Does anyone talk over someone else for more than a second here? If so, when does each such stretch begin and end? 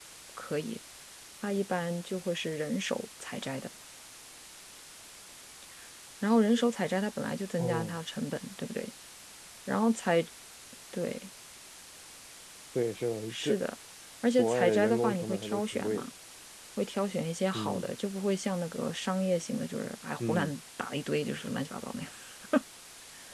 14.4-16.1

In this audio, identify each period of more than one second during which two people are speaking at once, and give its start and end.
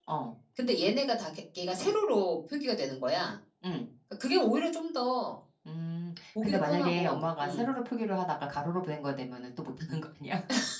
6.4-7.6

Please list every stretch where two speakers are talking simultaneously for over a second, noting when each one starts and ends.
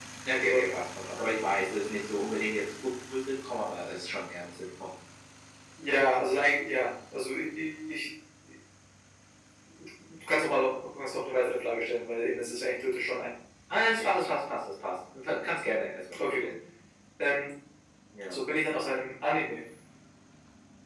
none

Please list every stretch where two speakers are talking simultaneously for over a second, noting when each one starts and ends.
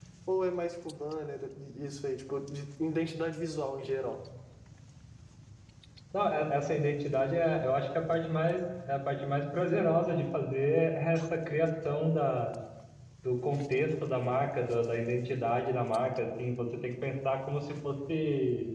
none

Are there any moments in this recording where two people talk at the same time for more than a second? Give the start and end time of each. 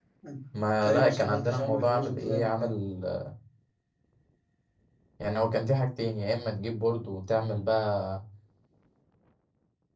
0.8-2.7

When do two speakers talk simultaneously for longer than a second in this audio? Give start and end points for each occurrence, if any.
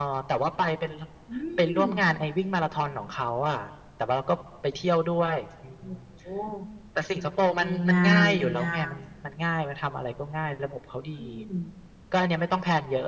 7.6-8.9

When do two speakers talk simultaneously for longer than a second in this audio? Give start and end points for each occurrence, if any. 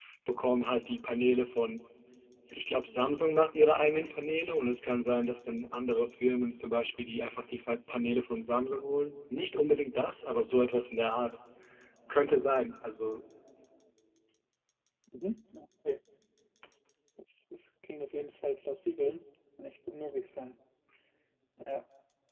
none

